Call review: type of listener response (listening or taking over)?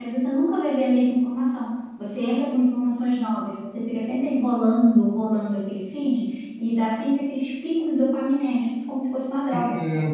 taking over